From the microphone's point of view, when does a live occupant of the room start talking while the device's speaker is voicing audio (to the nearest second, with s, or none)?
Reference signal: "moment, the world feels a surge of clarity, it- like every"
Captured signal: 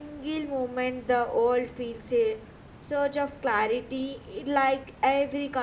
none